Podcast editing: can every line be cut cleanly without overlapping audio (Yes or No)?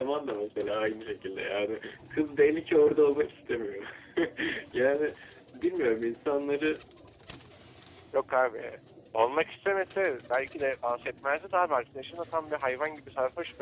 Yes